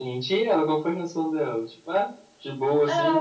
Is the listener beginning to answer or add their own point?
Yes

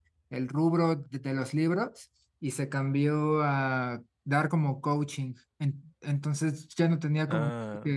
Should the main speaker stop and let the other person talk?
No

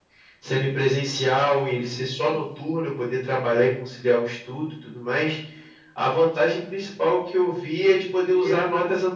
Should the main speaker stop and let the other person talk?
No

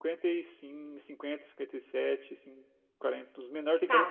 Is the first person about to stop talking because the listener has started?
Yes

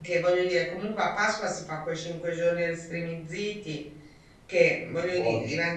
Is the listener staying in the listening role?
Yes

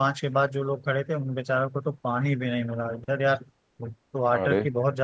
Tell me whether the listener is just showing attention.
Yes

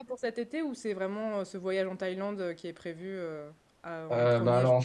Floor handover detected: Yes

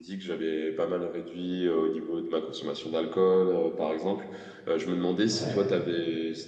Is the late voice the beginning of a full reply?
No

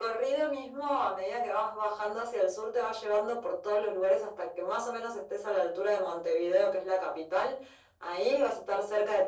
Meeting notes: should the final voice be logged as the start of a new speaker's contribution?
No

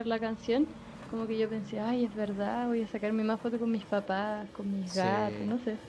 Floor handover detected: Yes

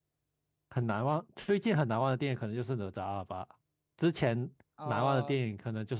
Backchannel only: Yes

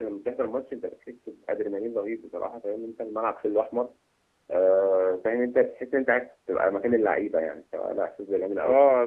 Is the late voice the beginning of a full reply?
Yes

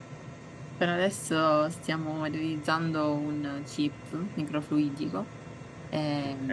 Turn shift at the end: No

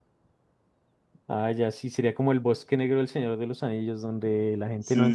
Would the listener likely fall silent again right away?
No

